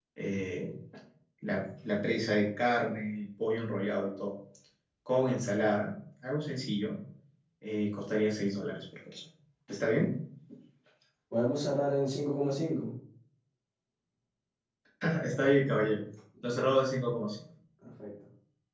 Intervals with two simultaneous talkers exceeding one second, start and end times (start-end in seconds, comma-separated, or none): none